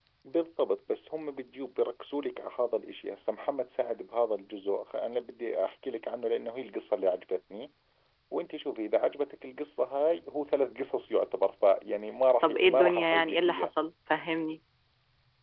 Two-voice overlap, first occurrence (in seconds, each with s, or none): 12.4 s